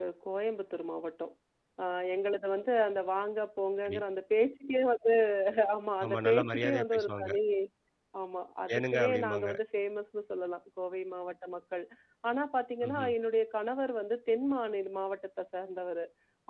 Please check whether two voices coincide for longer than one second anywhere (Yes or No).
Yes